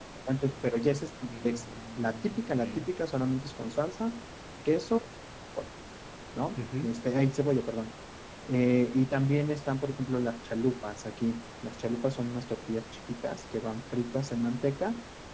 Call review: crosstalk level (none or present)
present